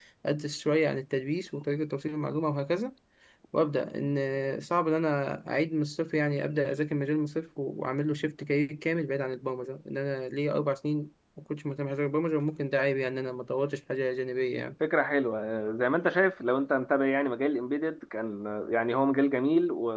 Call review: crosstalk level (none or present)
none